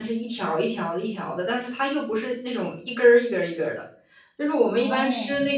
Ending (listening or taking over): listening